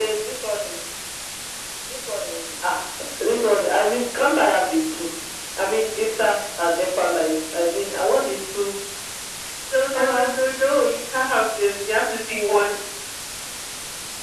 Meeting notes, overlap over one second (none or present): none